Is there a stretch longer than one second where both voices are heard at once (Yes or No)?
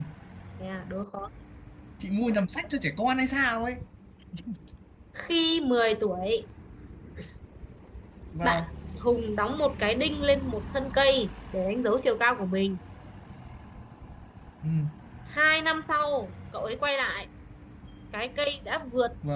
No